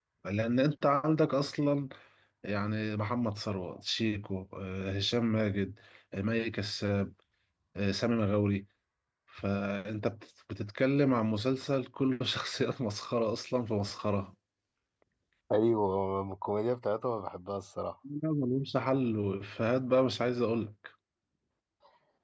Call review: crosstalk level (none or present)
none